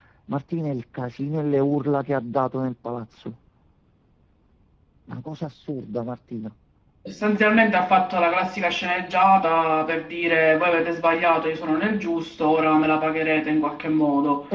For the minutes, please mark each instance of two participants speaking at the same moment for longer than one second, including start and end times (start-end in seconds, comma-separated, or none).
none